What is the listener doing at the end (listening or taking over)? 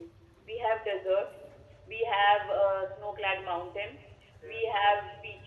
listening